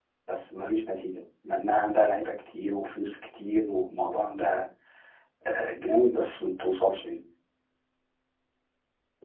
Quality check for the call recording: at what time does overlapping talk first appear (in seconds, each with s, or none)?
none